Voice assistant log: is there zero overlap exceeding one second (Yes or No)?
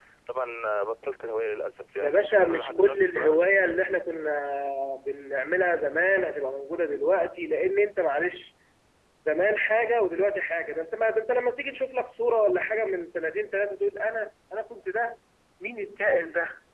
No